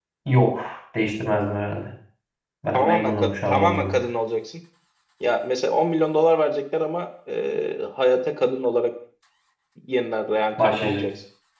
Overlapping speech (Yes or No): Yes